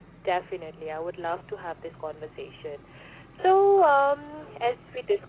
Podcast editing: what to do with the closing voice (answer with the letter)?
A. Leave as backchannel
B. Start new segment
A